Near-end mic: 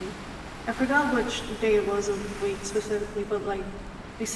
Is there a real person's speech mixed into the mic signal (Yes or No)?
Yes